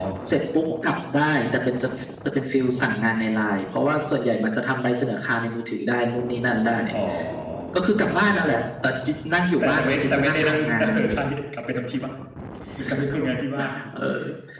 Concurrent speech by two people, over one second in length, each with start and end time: 9.6-11.2

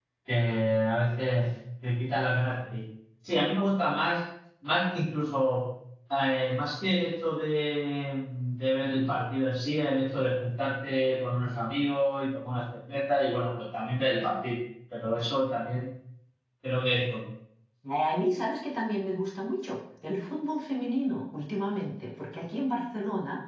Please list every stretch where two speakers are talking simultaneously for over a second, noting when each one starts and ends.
none

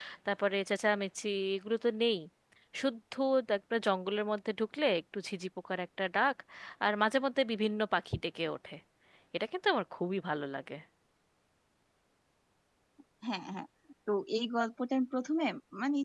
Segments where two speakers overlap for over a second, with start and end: none

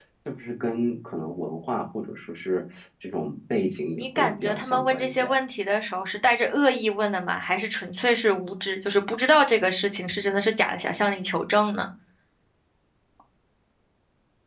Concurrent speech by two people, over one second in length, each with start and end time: 3.9-5.3

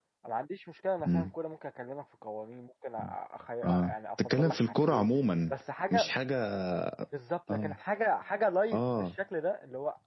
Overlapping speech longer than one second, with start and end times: 3.6-5.1

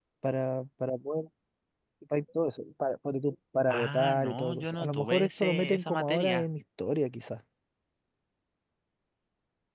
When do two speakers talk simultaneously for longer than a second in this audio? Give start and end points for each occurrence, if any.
3.7-6.5

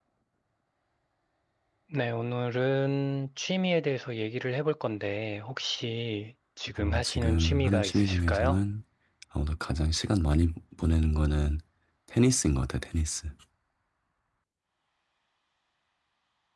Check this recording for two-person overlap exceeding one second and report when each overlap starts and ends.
6.8-8.6

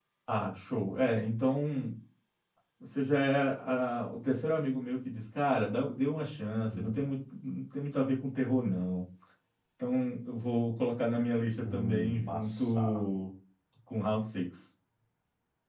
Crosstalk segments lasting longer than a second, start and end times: 11.6-13.0

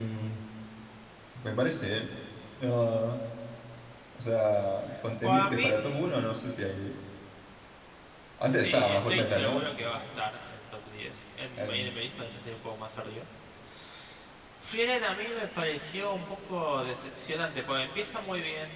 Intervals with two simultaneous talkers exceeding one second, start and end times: 8.4-9.6

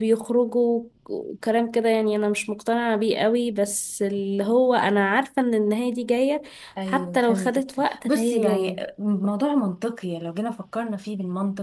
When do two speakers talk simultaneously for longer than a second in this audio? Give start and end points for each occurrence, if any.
6.9-8.8

